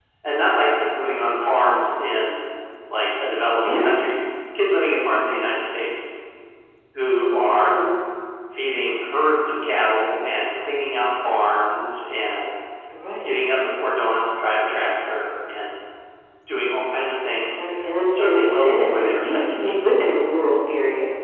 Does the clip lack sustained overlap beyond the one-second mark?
No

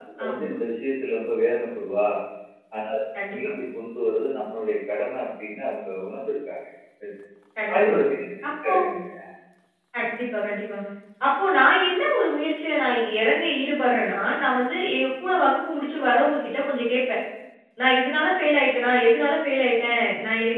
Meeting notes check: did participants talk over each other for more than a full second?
No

